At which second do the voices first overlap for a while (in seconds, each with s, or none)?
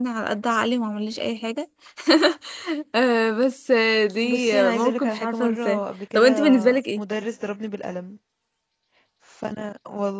4.2 s